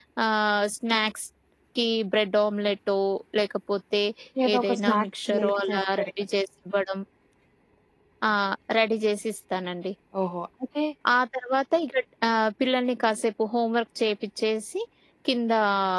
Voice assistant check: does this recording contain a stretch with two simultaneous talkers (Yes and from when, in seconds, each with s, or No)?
Yes, from 4.6 s